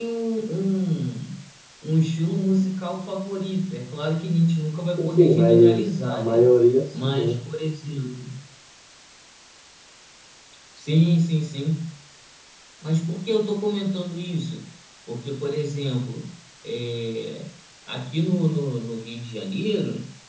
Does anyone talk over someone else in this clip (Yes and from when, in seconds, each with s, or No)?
Yes, from 5.0 s